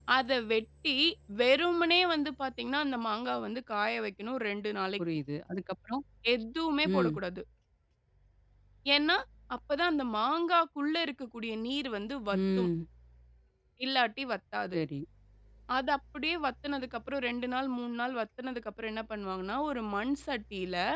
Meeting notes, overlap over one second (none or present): none